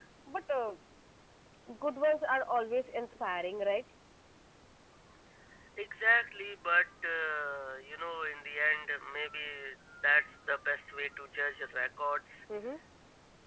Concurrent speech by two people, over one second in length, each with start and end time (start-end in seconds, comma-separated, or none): none